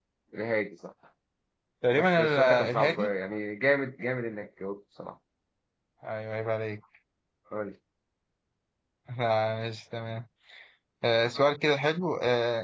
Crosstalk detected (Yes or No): Yes